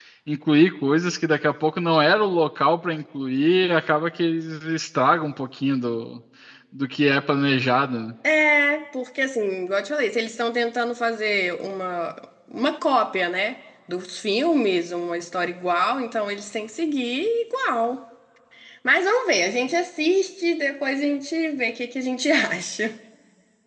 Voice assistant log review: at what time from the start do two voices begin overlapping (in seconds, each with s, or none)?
none